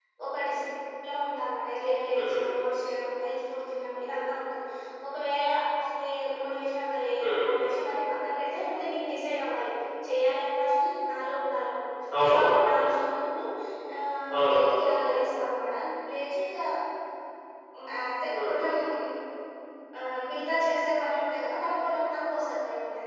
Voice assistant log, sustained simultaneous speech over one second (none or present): none